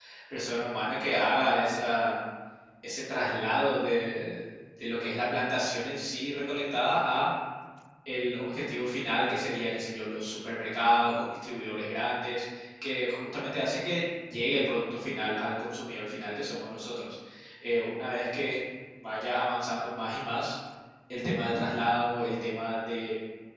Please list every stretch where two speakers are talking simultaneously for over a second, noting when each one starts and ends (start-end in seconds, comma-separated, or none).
none